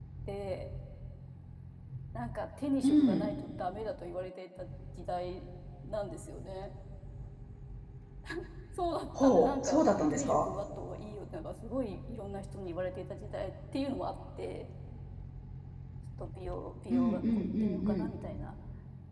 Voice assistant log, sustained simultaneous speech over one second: present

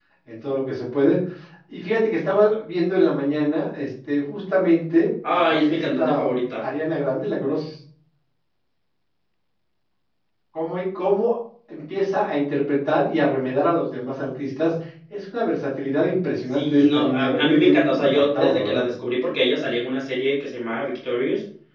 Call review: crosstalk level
present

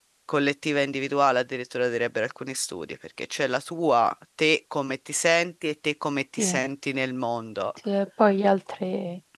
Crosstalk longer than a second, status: none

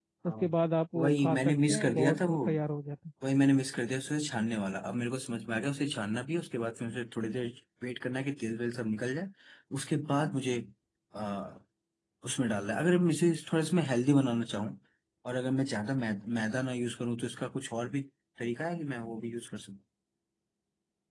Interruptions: present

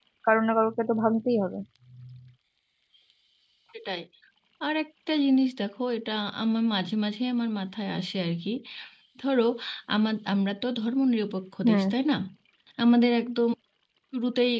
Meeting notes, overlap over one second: none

